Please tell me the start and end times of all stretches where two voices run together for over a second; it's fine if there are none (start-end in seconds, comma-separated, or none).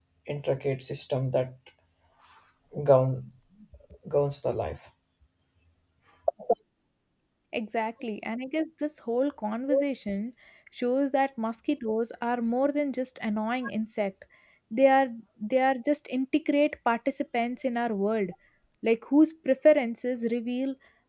none